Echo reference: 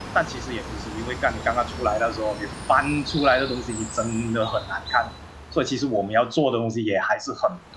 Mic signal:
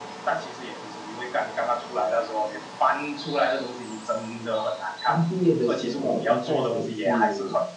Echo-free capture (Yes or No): No